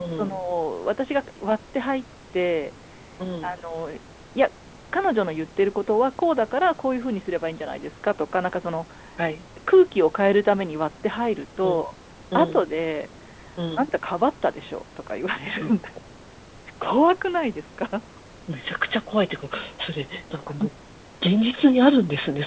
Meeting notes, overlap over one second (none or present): none